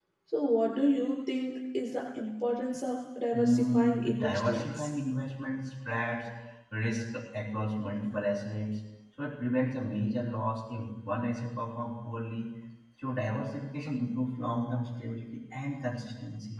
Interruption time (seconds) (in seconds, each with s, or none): 3.3 s